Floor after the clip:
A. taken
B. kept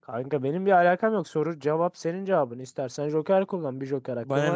A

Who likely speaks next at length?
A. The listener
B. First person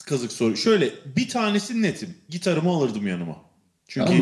A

